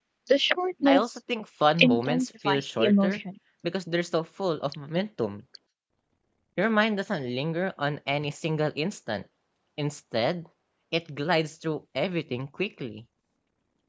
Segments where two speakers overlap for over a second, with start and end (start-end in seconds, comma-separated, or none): 1.8-3.2